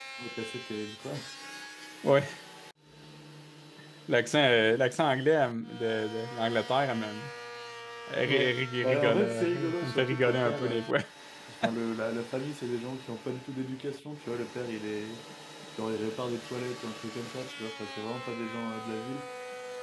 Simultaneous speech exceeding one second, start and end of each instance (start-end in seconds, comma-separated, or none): 8.2-10.8